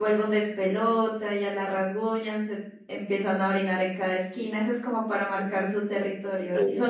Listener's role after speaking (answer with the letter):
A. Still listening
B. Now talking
A